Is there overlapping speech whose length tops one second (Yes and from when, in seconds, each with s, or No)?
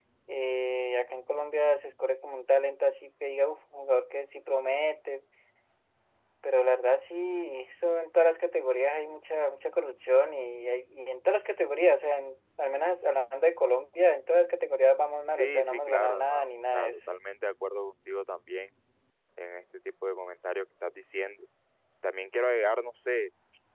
Yes, from 15.4 s